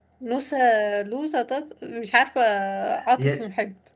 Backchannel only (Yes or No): No